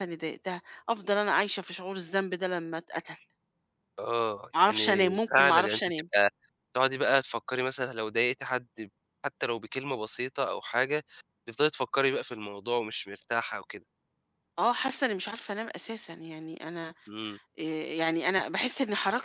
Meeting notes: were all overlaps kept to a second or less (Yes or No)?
No